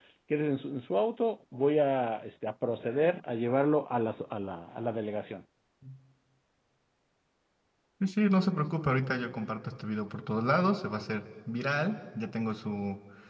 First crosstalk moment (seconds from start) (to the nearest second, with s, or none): none